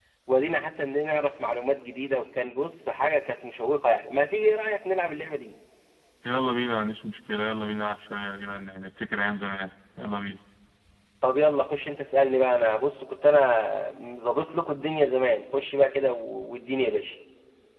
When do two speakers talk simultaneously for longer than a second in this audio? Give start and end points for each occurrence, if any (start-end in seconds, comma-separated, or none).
none